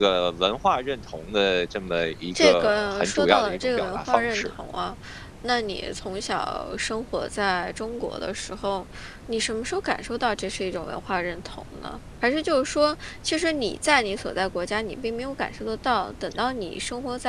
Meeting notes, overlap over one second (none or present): present